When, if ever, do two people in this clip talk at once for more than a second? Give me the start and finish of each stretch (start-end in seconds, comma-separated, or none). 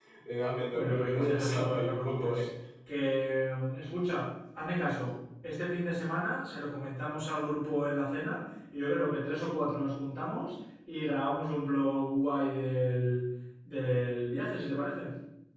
0.7-2.5